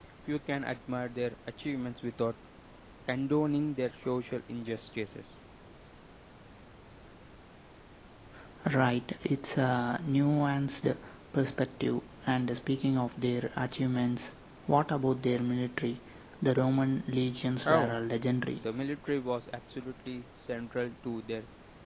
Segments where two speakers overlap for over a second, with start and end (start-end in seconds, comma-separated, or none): none